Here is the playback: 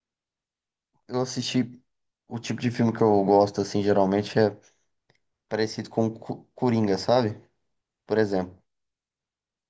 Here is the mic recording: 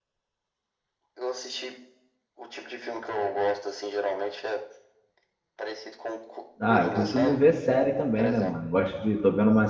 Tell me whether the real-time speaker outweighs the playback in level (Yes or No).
Yes